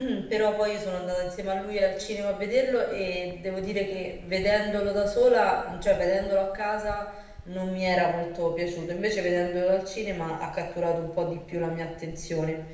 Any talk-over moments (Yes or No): No